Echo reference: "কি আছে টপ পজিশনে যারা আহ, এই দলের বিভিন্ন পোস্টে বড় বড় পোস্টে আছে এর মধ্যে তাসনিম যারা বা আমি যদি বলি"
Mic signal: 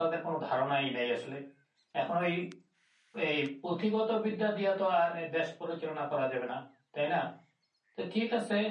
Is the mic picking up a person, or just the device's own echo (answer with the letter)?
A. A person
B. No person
A